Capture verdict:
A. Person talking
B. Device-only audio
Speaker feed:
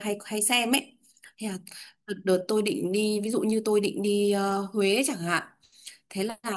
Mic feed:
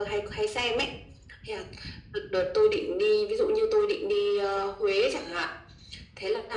B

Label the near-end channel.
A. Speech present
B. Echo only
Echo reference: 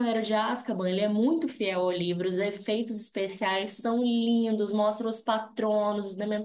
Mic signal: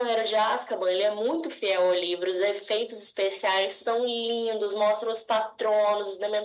B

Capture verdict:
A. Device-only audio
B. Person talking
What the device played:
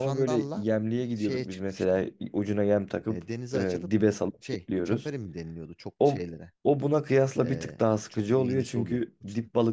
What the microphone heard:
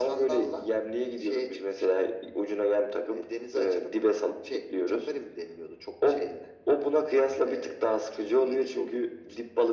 A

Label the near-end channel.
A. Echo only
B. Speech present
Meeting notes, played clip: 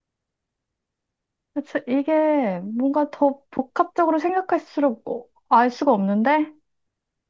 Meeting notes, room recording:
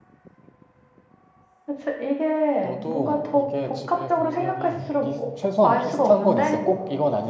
B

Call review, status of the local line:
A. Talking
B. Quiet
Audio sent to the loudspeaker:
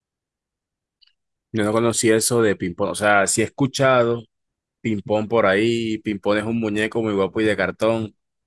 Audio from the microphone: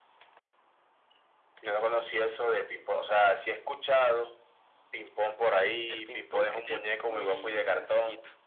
A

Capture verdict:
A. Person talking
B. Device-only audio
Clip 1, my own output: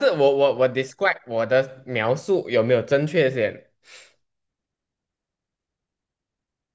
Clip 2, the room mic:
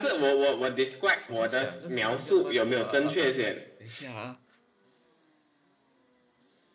A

